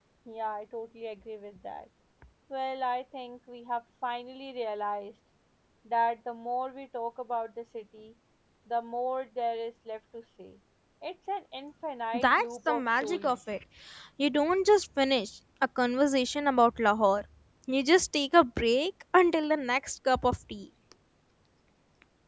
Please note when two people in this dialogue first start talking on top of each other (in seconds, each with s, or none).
12.1 s